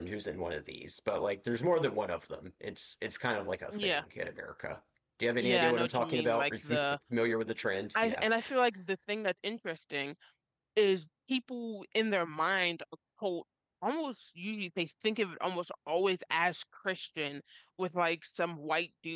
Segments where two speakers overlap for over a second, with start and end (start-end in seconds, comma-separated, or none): 5.4-6.8